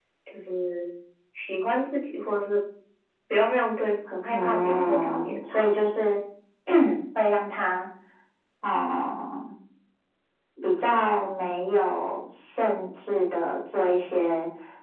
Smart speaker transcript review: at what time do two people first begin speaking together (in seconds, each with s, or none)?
4.3 s